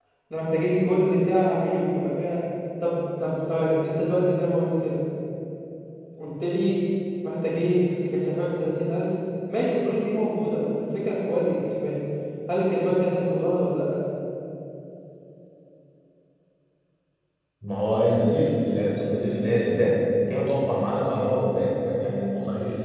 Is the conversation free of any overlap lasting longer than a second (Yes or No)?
Yes